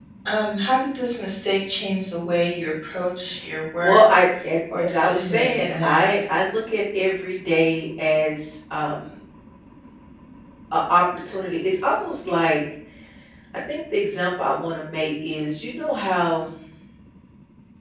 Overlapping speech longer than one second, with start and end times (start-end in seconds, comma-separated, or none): 4.8-6.1